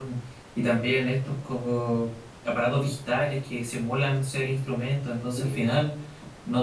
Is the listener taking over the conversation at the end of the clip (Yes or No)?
No